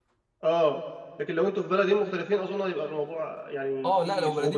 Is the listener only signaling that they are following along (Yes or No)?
No